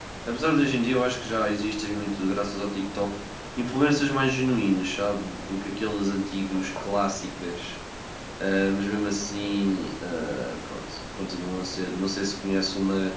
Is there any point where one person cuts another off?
No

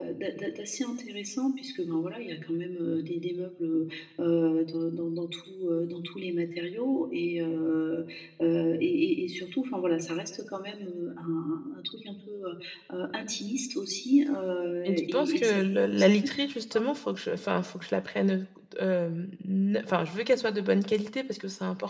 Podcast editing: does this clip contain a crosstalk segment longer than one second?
Yes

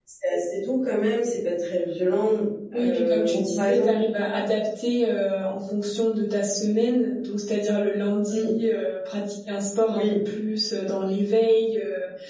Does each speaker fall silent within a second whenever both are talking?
No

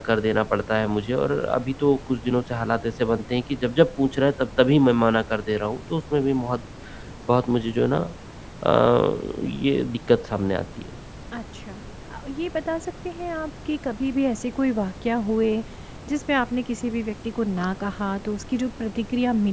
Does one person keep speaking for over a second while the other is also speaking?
No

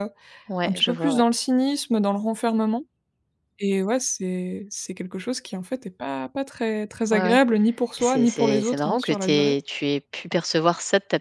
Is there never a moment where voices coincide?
No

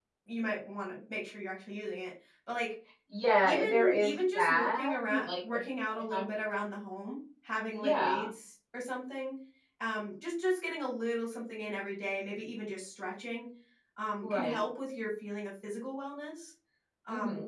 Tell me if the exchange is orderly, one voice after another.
No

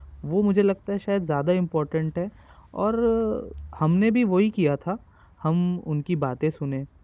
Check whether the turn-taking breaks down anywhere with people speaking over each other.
No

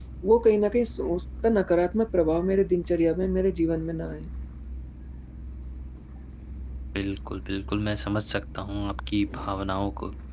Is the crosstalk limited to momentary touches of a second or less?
Yes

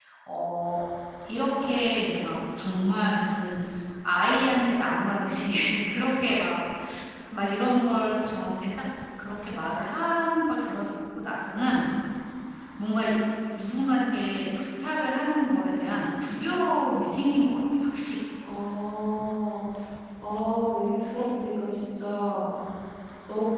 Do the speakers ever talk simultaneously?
No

